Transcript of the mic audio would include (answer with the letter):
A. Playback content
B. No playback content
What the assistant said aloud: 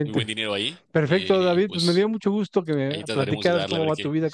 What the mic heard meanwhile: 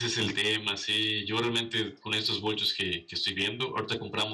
B